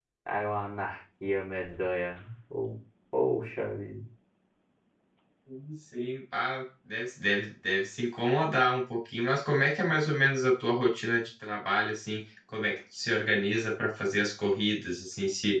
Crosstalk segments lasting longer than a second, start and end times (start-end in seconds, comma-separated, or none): none